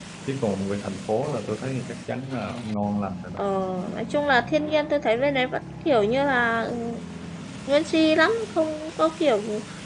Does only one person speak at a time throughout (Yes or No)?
Yes